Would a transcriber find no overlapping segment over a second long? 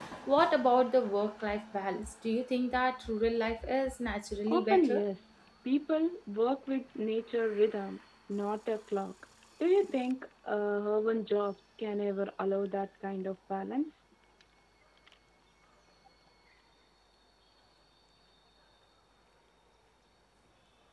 Yes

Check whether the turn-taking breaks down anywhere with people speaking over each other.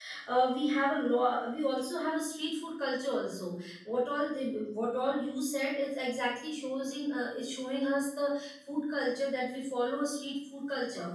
No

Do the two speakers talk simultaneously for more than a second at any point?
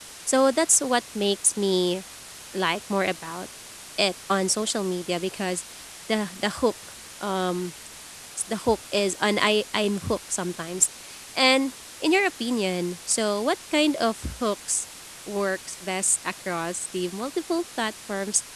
No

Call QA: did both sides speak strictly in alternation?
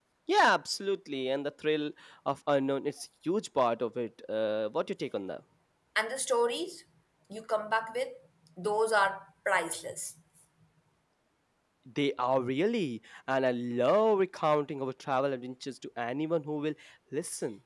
Yes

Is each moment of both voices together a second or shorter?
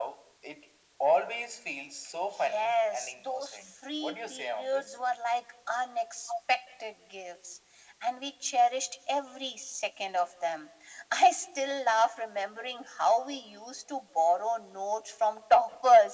No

